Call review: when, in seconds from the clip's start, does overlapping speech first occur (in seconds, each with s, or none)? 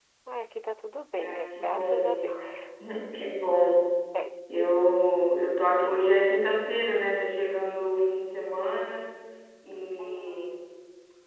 1.2 s